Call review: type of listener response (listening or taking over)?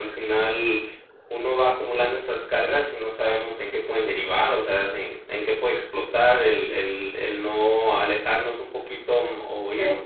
listening